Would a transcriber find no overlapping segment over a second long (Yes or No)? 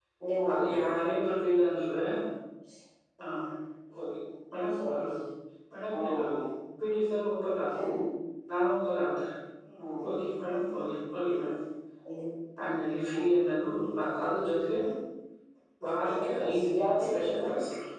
No